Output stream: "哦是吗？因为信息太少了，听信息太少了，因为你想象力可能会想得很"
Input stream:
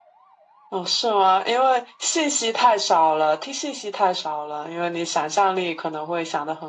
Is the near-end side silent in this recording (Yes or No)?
Yes